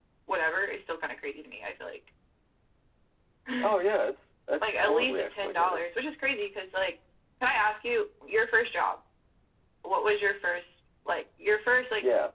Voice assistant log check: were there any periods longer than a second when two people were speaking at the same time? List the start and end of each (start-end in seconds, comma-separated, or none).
4.6-5.8